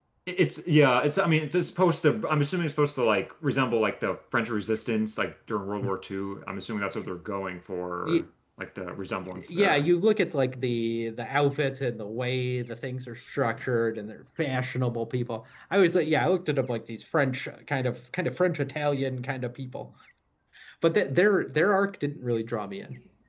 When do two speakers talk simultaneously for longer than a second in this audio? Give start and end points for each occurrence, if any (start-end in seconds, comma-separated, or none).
none